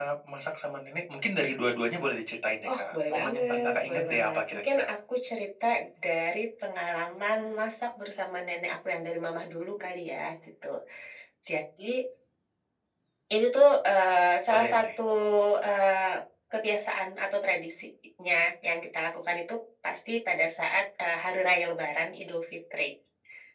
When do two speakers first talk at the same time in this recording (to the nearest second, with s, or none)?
3 s